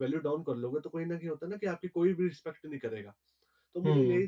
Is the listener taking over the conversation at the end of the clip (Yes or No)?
No